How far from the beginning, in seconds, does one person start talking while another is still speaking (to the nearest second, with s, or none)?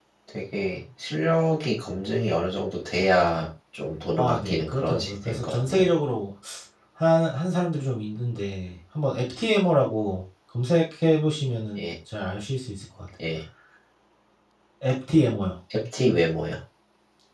4 s